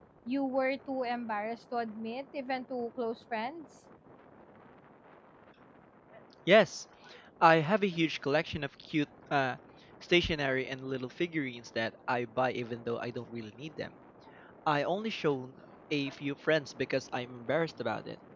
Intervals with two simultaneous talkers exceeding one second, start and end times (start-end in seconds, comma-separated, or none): none